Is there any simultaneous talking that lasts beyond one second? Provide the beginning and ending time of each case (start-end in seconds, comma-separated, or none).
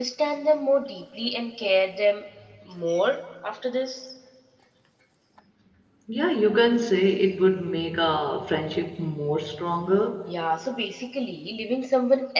none